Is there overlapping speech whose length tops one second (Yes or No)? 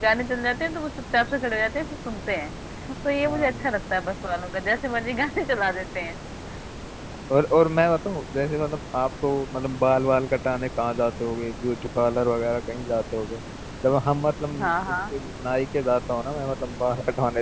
No